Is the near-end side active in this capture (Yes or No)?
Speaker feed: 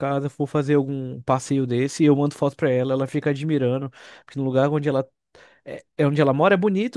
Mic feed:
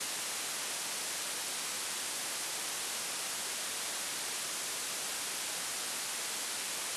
No